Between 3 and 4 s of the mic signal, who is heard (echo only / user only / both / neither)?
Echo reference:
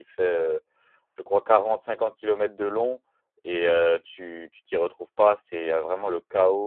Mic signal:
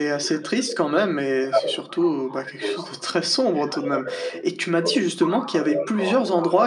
both